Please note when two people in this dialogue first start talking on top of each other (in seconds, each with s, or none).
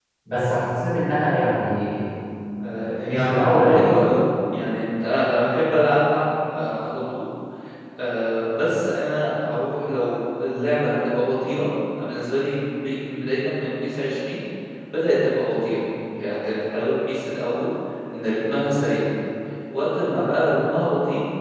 2.8 s